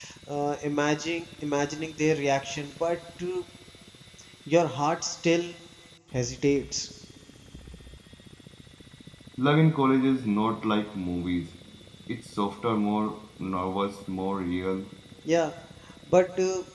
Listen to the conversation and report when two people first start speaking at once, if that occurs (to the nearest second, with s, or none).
none